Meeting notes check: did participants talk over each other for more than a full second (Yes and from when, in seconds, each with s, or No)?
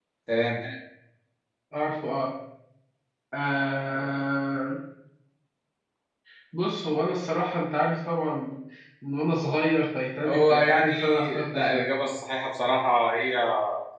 Yes, from 10.2 s